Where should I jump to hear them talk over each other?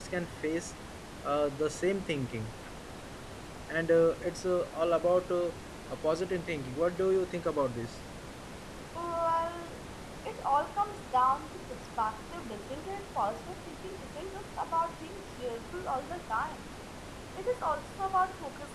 none

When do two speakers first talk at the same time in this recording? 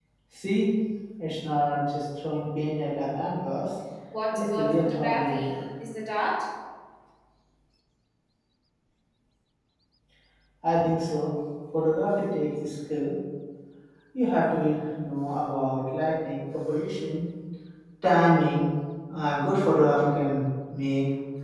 4.3 s

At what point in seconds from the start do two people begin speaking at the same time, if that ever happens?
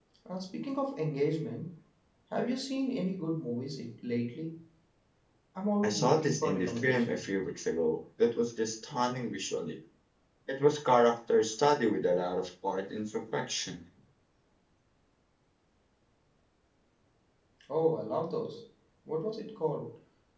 5.8 s

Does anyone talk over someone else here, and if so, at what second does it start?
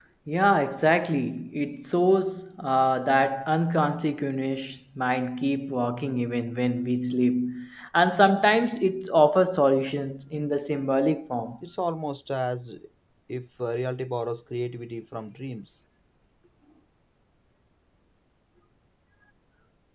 none

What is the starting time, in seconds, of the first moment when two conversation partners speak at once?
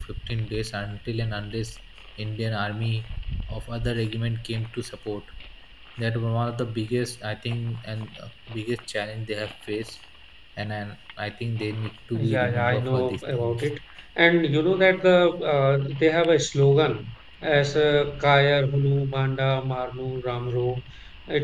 12.1 s

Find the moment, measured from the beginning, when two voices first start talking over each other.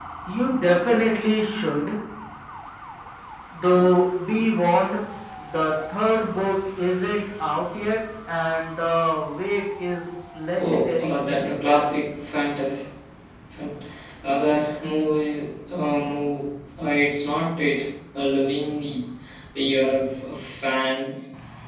10.6 s

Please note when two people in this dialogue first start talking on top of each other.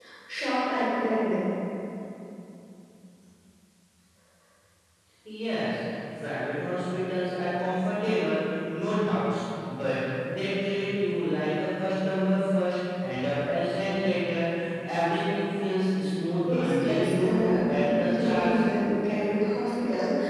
16.5 s

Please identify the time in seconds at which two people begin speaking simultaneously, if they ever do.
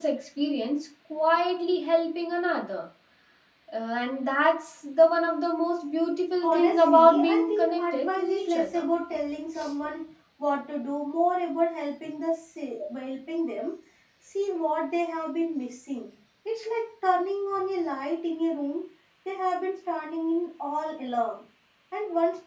6.4 s

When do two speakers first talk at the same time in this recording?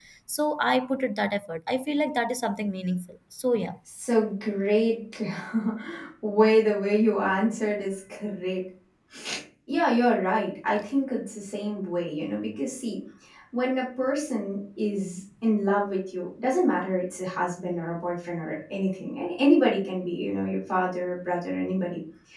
none

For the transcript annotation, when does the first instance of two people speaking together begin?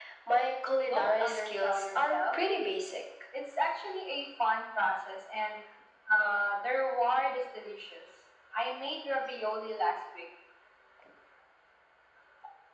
0.8 s

